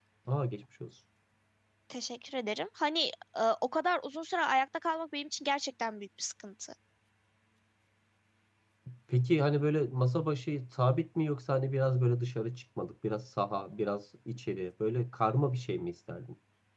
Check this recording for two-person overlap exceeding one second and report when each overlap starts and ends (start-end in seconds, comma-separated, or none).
none